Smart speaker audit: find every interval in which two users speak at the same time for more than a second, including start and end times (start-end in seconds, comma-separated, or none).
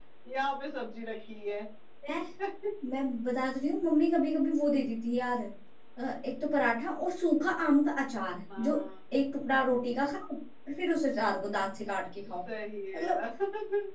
none